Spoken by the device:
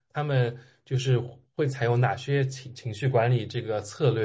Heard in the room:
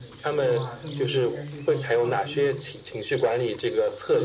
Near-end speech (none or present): present